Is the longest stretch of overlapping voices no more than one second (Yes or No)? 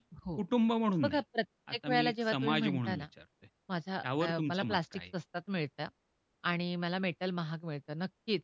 No